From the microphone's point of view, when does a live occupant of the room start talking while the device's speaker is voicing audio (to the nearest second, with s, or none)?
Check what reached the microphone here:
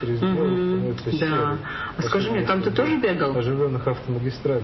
none